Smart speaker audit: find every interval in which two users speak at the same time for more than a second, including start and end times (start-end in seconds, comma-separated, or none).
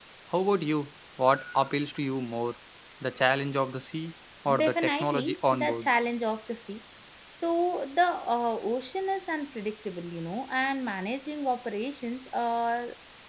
4.6-5.9